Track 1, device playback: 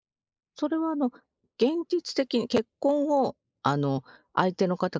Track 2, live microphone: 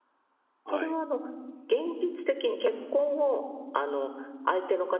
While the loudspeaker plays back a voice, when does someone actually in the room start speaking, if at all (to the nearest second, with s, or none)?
1 s